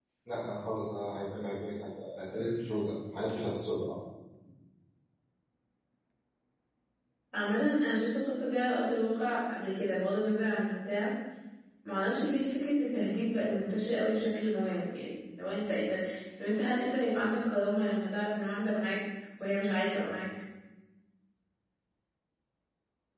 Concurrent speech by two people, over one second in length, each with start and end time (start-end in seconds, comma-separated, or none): none